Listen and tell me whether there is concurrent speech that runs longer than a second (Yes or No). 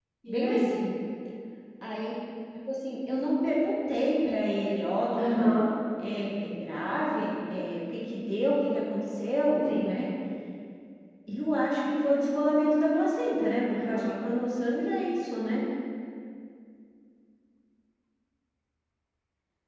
No